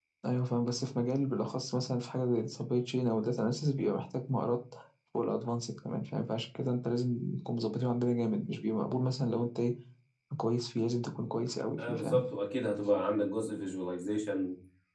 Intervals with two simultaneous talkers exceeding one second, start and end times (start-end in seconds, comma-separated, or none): none